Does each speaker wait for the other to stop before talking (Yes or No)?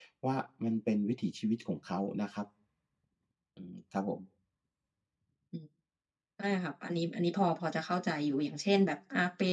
Yes